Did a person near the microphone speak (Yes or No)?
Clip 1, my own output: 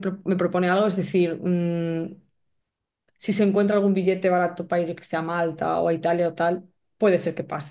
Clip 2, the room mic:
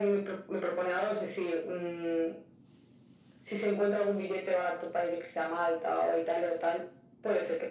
No